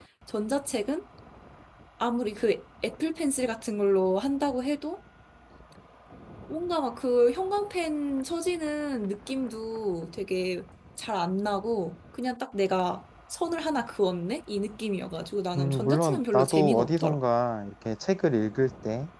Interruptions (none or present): present